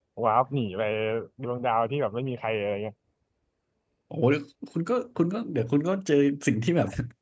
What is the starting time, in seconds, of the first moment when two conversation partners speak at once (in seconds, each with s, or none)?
none